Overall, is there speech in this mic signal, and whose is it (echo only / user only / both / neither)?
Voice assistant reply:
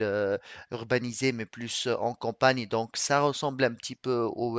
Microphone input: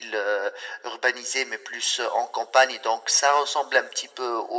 echo only